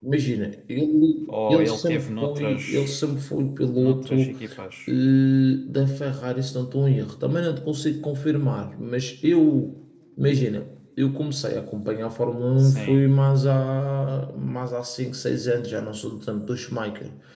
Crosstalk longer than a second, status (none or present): present